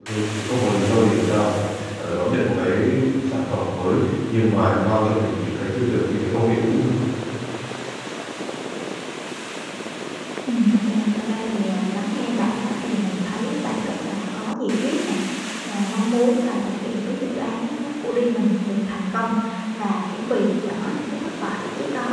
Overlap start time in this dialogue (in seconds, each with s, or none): none